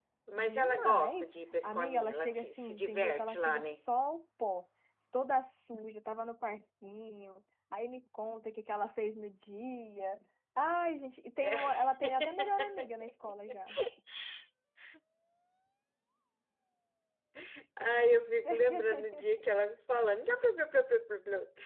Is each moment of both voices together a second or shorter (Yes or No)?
No